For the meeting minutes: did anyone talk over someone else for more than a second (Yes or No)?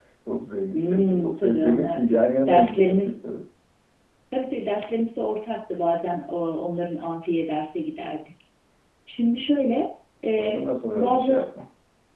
Yes